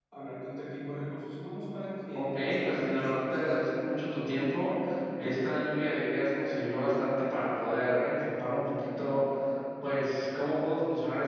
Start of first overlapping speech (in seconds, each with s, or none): 2.1 s